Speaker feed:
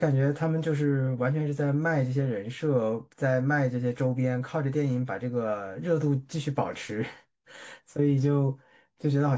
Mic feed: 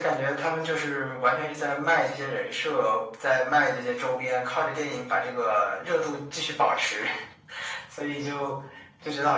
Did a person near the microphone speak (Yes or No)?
No